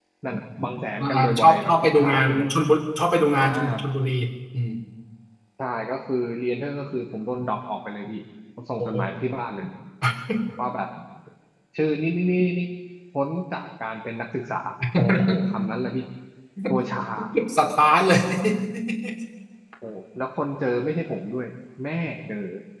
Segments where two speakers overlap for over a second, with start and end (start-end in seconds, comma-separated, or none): 1.0-2.5